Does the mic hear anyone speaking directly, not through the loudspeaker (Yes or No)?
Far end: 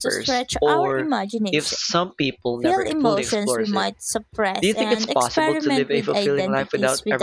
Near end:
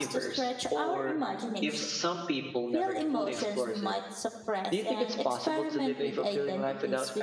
No